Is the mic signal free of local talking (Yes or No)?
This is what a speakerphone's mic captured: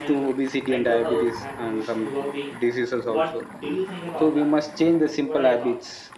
No